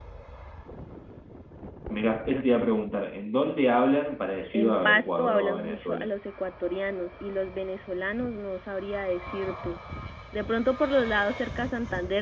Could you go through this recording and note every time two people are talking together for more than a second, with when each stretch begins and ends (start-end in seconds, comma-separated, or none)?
4.5-6.1